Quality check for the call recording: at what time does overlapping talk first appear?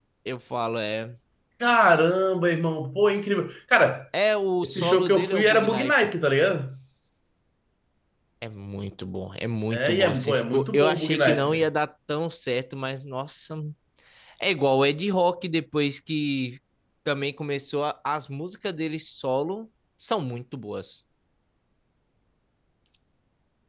4.6 s

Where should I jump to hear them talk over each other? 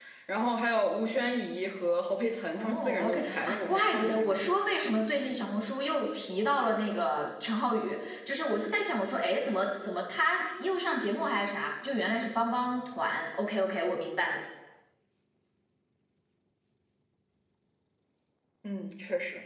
2.5 s

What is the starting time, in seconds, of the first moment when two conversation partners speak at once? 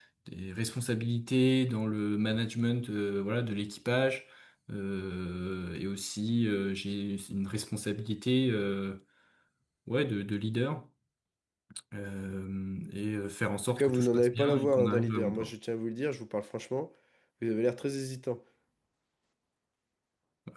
13.8 s

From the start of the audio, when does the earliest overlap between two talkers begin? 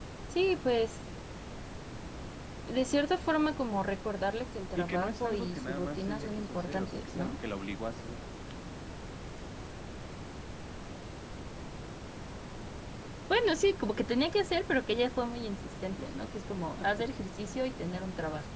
4.8 s

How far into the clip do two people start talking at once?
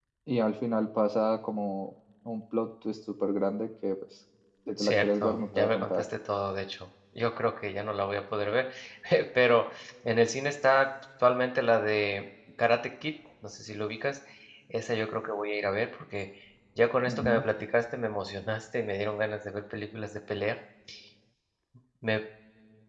4.8 s

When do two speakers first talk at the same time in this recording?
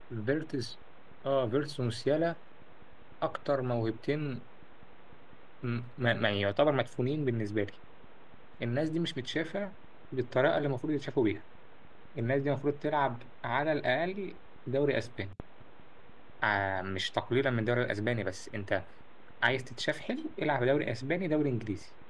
none

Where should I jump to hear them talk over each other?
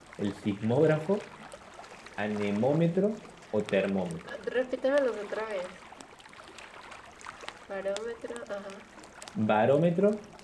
none

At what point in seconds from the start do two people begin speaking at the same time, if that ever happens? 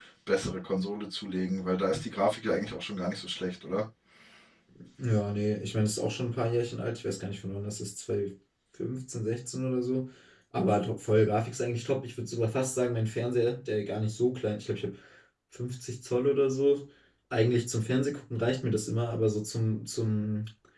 none

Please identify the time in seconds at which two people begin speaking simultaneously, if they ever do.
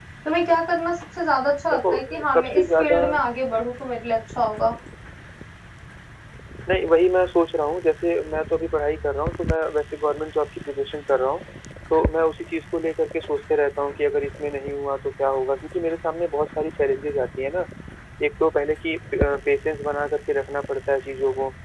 1.7 s

